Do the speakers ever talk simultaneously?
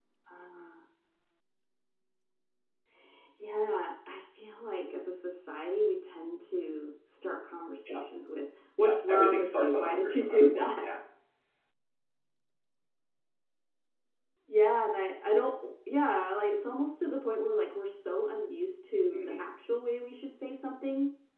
Yes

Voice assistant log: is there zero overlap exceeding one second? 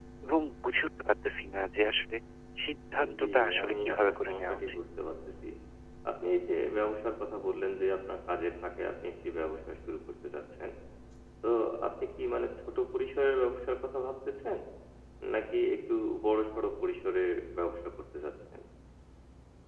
No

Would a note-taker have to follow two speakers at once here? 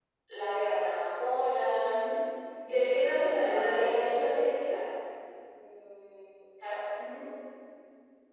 Yes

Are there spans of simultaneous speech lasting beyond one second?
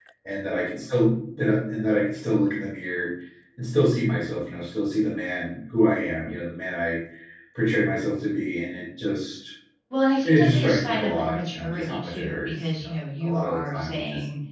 Yes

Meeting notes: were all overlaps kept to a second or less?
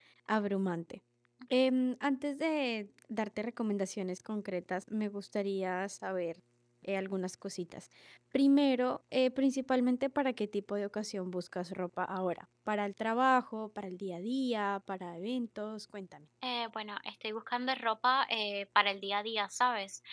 Yes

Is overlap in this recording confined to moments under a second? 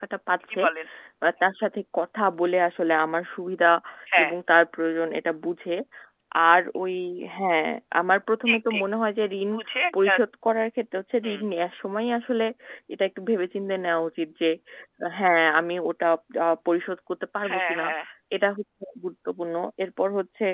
Yes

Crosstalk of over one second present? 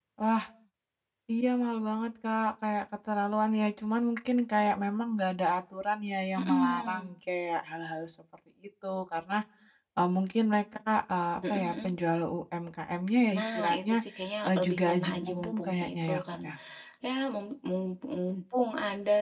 Yes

